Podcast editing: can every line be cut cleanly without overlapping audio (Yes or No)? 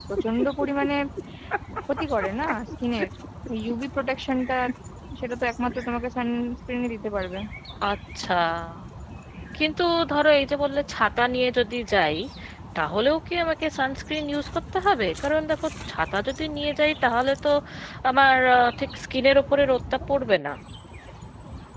Yes